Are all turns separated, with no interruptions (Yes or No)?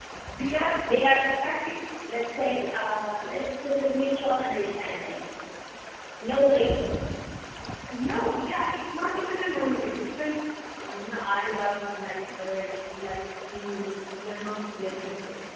Yes